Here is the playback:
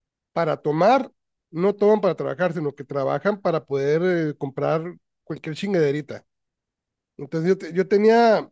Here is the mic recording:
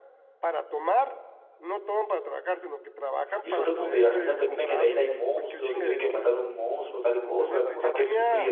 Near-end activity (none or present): present